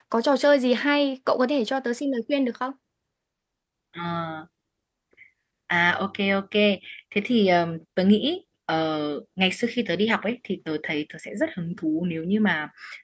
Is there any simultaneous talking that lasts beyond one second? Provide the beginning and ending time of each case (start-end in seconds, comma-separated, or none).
none